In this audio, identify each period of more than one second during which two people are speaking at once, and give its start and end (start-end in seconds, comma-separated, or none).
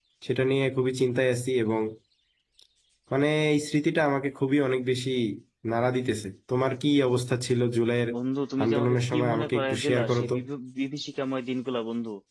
8.6-10.3